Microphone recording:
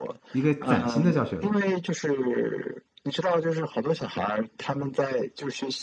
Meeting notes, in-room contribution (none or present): present